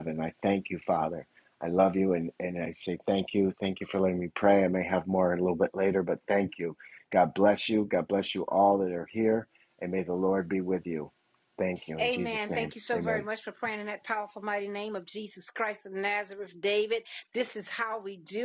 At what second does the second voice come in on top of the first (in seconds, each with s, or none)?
12.0 s